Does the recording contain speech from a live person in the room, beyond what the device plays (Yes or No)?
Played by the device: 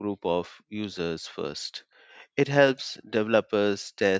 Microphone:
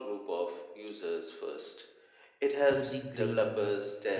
Yes